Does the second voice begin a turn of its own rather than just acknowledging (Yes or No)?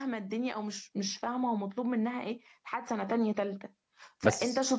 No